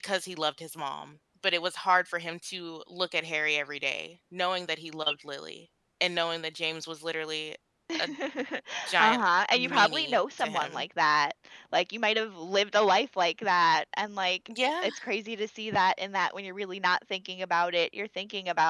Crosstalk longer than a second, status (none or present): present